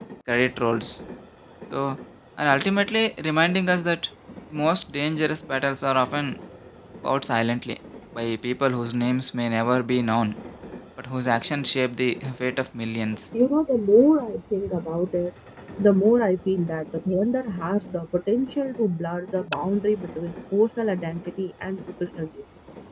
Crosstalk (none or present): none